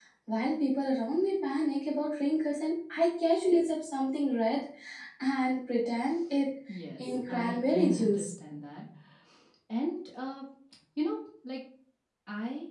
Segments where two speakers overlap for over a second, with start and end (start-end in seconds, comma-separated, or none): 7.0-8.3